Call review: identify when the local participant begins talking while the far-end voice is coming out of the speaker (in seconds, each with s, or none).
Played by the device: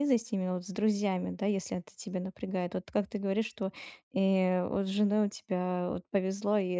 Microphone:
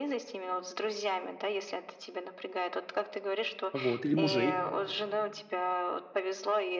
3.7 s